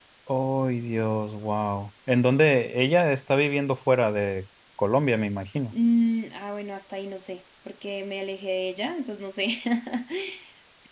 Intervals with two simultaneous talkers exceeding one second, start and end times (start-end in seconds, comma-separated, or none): none